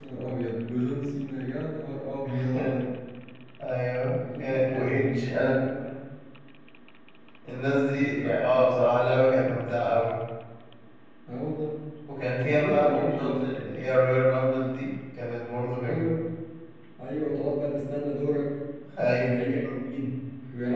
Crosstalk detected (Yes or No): Yes